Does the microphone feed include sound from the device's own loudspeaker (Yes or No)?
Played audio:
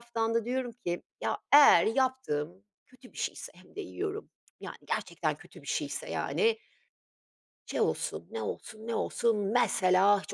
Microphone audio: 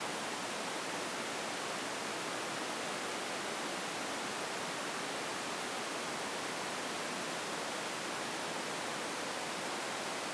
No